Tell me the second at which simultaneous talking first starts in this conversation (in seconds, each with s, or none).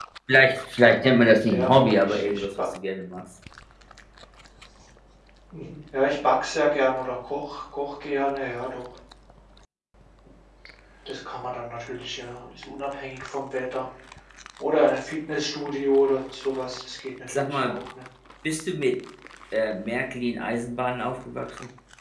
1.0 s